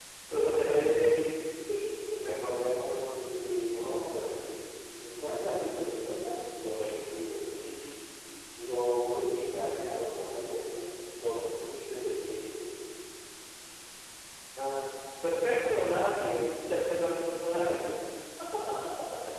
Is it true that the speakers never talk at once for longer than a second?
Yes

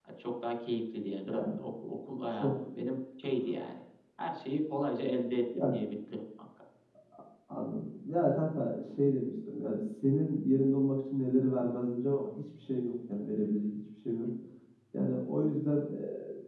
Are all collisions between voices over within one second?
Yes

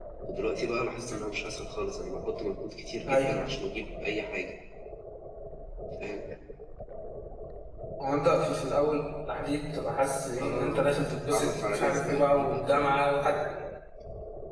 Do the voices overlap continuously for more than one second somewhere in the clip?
Yes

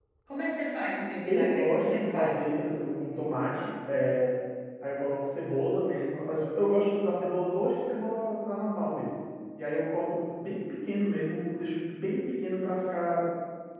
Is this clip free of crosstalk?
No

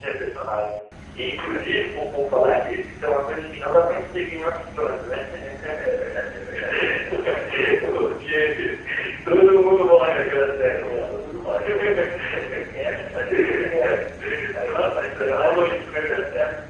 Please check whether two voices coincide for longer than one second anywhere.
Yes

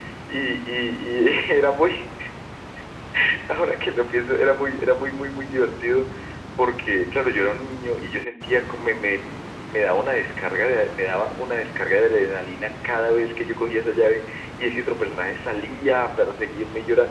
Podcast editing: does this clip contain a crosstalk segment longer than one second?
No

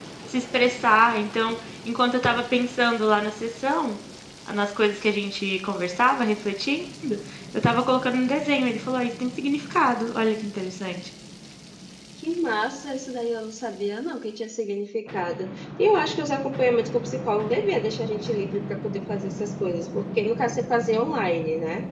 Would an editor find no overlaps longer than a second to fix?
Yes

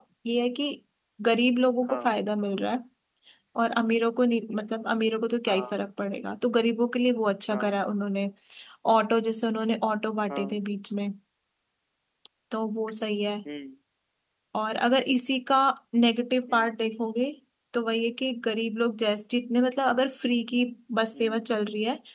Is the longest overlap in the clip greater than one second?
No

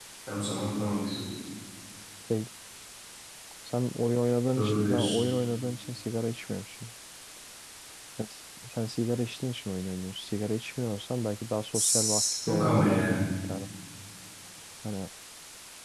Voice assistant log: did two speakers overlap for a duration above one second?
Yes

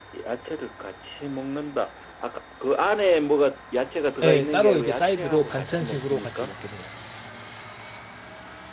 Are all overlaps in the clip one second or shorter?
No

